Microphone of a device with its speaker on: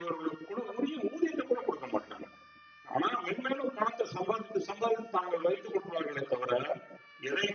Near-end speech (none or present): none